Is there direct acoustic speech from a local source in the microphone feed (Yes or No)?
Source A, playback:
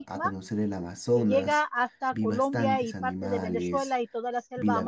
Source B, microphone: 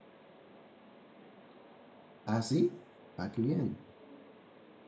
Yes